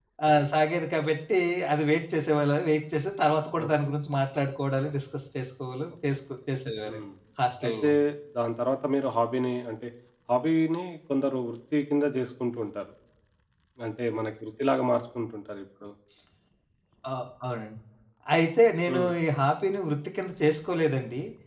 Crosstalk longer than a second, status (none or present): none